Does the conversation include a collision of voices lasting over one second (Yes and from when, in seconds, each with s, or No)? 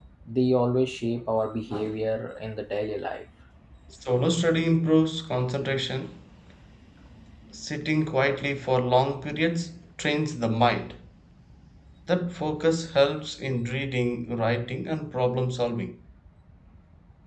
No